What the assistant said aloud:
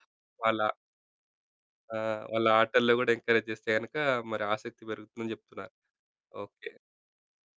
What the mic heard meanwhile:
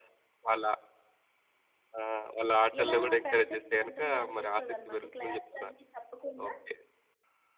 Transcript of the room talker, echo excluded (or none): ఇలా పెడితే బావుంటుంది అనిపిస్తది అనమాట. క్లాసులన్నీ చెప్పకుండా